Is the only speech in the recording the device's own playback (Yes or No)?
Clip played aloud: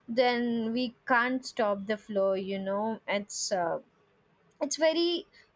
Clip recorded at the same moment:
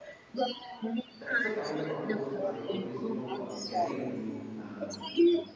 No